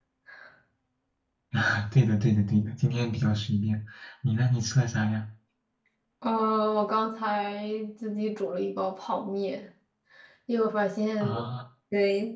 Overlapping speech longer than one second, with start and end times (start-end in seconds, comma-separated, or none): none